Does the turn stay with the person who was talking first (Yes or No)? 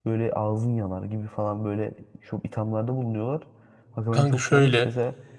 Yes